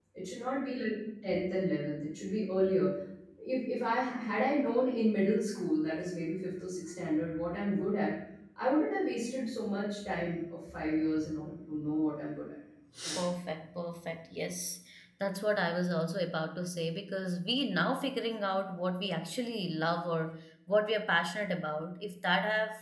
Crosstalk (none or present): none